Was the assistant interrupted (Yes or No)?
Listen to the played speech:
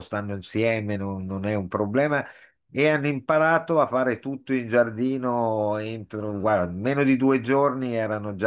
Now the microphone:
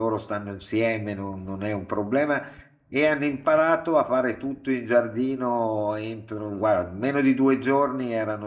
No